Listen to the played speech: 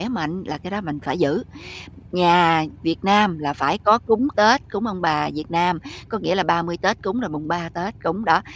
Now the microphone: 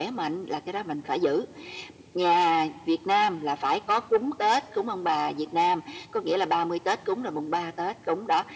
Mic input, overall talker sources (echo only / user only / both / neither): echo only